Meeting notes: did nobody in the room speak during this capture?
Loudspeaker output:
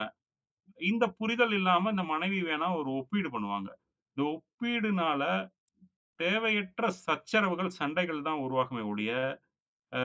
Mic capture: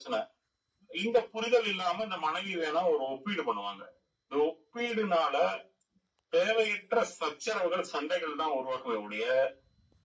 Yes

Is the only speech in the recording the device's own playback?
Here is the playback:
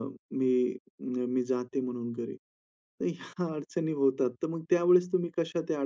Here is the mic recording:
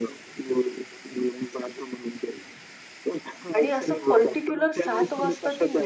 No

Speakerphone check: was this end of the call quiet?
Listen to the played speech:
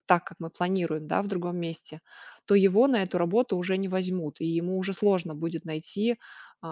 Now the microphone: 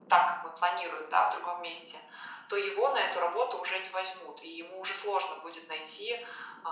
Yes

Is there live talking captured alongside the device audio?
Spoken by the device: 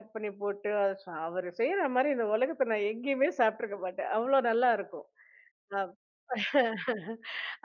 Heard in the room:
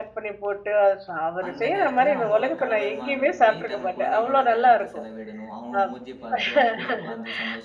Yes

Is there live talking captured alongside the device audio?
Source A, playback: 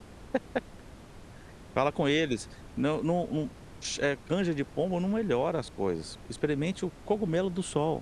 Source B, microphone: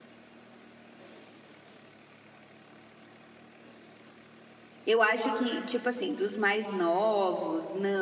Yes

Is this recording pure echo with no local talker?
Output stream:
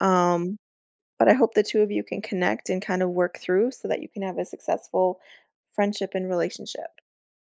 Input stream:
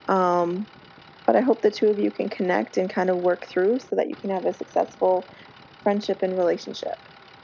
Yes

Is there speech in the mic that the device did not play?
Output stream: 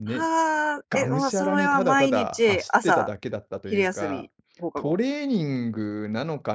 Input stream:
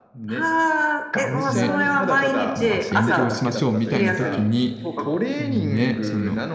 Yes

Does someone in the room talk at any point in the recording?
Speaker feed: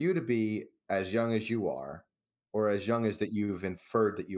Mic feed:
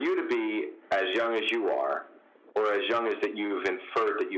No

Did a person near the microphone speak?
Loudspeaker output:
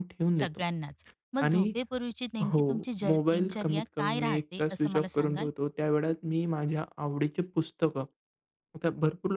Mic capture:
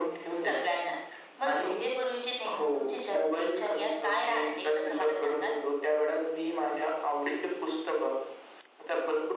No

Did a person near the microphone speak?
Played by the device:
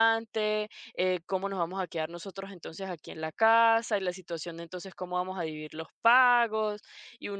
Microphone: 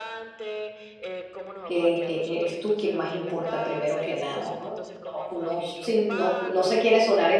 Yes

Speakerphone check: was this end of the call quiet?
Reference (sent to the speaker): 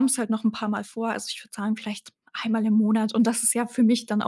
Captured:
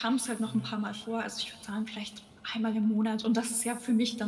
No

